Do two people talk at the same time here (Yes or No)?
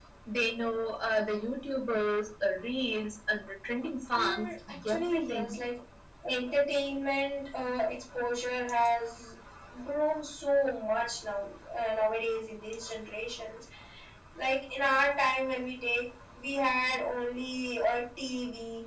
Yes